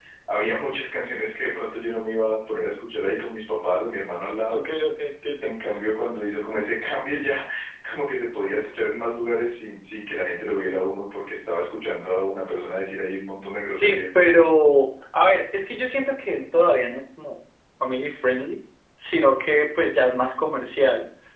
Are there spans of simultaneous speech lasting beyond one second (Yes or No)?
No